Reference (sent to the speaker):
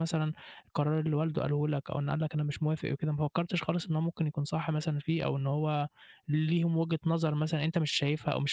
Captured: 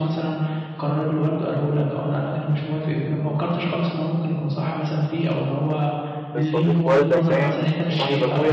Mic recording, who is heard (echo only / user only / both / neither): both